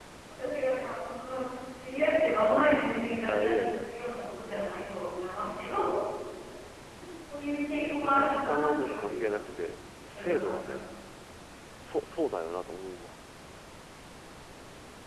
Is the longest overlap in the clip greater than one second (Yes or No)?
Yes